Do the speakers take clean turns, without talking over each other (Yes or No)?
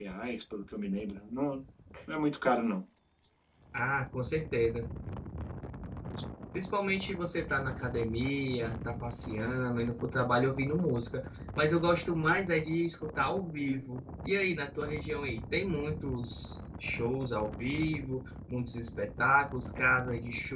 Yes